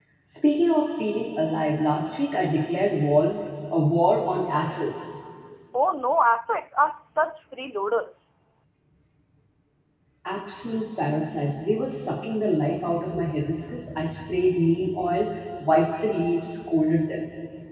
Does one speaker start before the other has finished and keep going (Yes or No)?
No